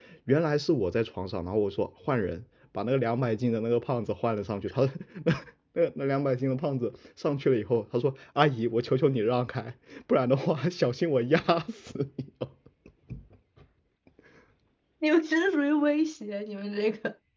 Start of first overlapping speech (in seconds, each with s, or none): none